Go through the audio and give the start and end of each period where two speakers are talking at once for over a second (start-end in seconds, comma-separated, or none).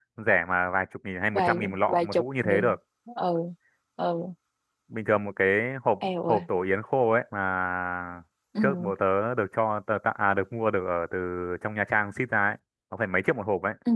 1.3-2.6